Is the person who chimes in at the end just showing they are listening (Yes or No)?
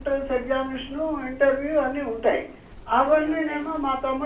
Yes